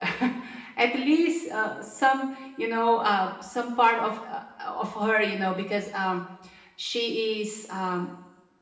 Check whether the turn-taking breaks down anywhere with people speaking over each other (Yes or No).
No